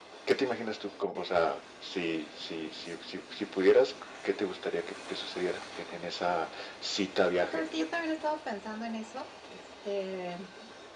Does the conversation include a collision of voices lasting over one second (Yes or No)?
No